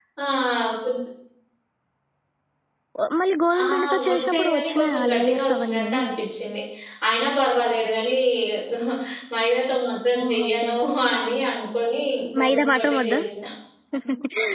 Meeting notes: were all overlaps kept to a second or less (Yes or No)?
No